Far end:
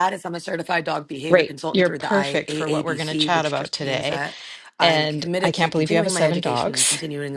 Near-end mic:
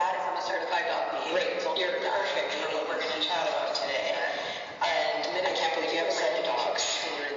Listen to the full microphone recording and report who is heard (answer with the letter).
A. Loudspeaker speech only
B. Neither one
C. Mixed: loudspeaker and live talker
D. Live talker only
A